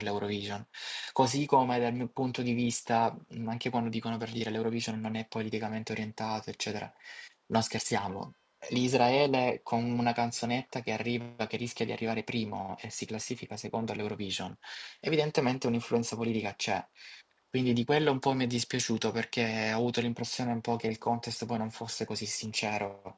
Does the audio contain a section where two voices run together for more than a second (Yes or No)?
No